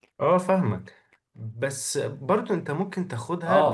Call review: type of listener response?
listening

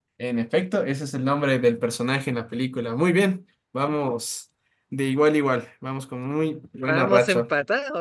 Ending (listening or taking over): taking over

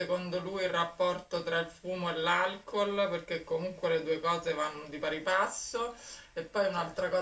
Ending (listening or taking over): listening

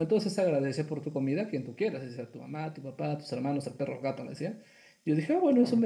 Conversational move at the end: listening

